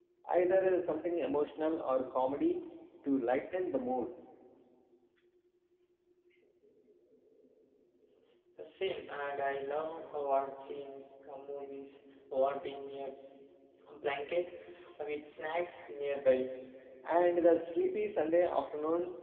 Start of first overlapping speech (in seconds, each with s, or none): none